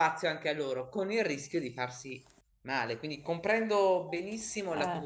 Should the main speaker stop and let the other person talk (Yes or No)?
No